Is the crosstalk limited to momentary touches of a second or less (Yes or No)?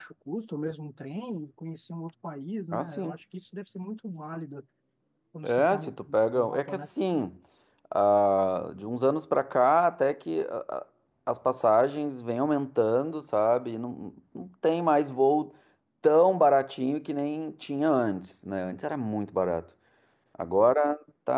Yes